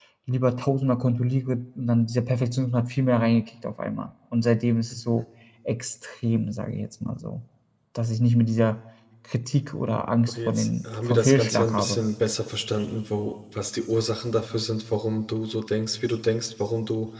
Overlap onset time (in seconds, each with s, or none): 10.3 s